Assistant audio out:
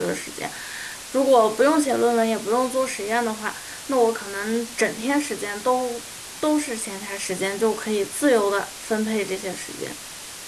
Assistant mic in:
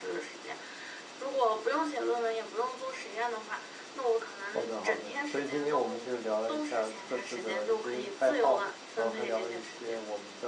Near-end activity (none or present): present